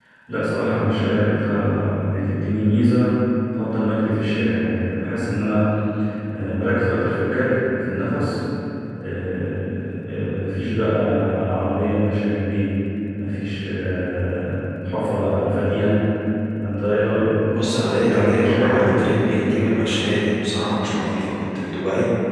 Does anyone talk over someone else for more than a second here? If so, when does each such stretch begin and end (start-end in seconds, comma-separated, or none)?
17.5-19.8